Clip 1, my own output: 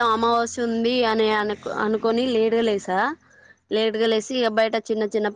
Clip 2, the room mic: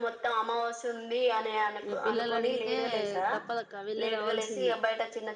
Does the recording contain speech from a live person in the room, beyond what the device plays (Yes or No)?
Yes